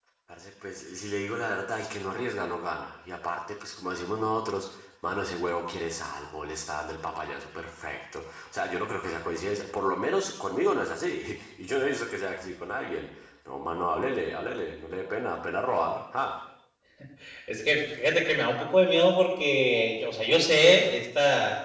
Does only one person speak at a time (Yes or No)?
Yes